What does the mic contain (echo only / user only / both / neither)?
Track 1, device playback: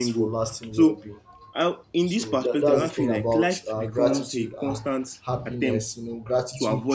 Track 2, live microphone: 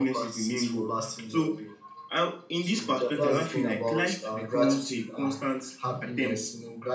echo only